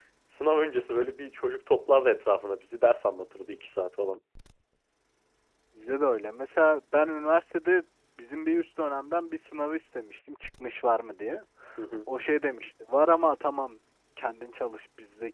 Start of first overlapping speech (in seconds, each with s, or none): none